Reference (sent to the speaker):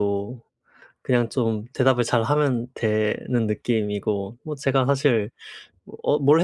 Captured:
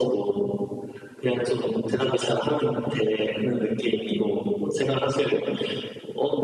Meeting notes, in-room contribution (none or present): none